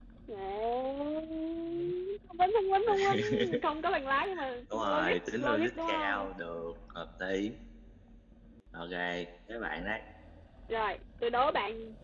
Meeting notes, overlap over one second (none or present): present